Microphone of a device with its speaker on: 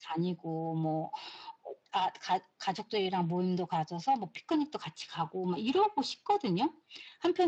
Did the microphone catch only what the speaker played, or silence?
Yes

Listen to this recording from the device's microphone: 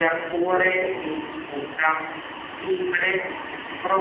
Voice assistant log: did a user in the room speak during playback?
Yes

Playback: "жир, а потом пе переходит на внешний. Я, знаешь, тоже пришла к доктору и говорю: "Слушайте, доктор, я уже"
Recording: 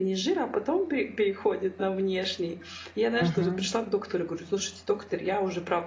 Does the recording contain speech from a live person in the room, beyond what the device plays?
Yes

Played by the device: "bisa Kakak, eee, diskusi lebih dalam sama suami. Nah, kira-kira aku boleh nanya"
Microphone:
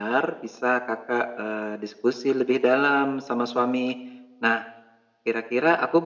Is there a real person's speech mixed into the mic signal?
No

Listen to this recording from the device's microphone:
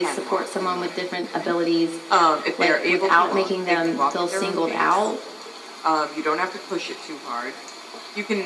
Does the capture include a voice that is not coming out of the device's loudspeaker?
No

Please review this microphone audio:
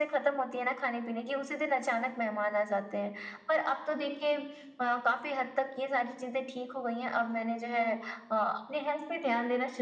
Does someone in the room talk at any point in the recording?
No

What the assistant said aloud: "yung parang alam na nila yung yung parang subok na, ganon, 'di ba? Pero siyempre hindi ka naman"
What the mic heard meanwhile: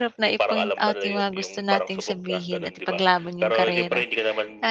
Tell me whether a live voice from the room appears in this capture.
Yes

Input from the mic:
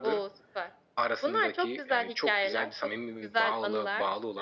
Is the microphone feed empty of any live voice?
Yes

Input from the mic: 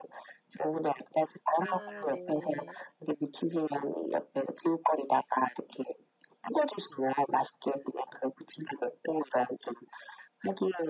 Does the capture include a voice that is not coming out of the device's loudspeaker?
Yes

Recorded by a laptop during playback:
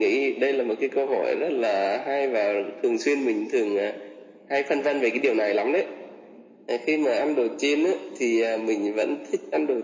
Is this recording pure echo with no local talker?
Yes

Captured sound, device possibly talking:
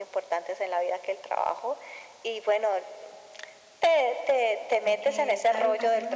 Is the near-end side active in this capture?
Yes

